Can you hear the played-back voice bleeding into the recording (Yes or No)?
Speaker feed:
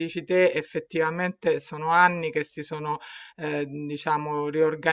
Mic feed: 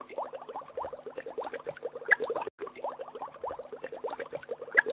No